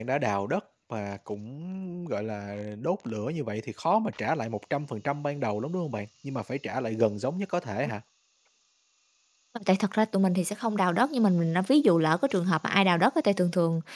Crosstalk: none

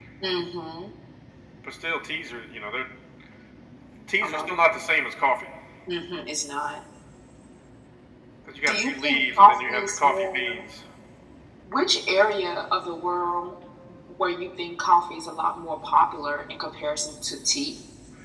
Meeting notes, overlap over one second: present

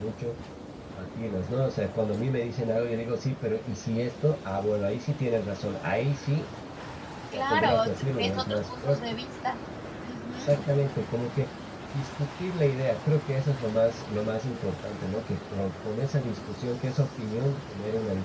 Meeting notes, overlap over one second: present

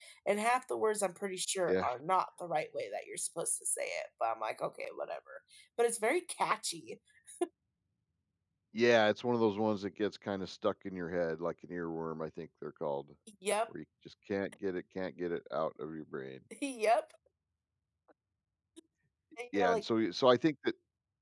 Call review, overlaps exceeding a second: none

